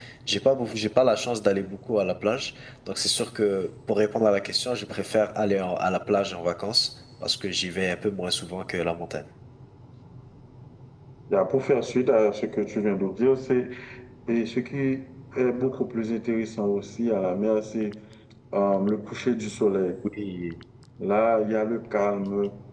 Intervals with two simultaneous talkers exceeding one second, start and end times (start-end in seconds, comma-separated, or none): none